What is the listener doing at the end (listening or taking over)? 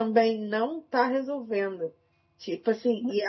listening